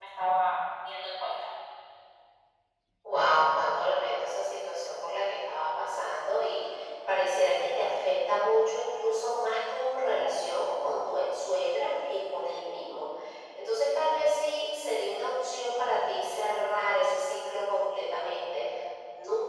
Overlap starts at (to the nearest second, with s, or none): none